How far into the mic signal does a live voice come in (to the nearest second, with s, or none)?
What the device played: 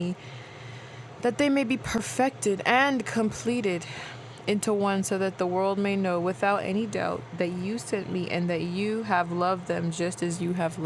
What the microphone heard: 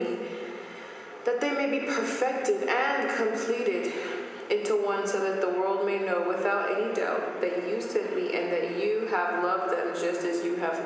none